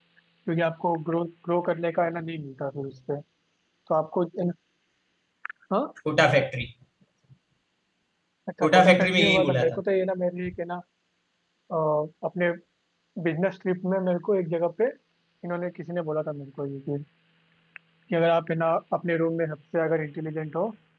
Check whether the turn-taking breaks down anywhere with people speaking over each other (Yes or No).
Yes